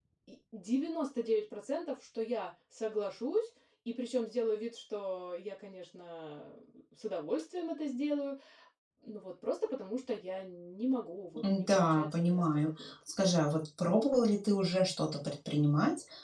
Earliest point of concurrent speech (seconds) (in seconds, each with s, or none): 11.4 s